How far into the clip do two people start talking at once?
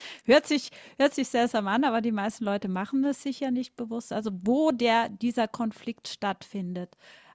none

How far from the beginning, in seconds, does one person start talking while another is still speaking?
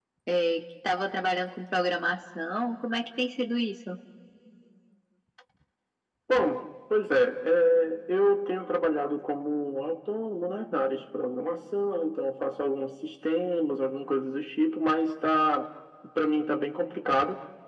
none

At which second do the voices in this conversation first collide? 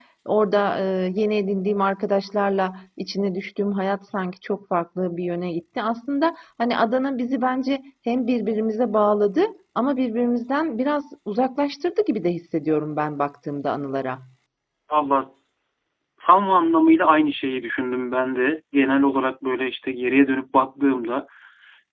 none

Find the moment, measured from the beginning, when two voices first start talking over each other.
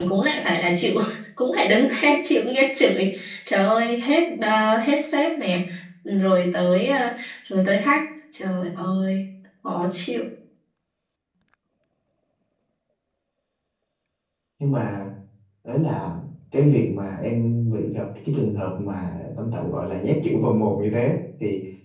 none

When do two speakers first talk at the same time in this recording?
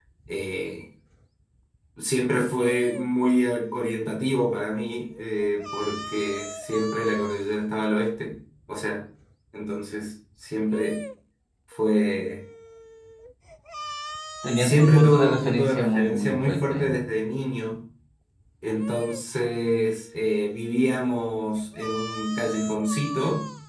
14.6 s

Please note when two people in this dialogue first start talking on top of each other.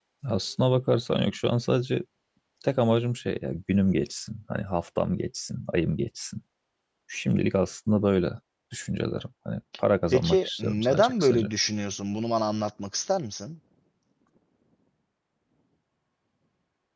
10.1 s

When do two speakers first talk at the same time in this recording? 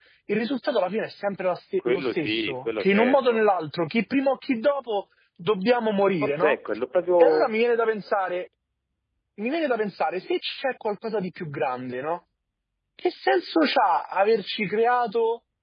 1.8 s

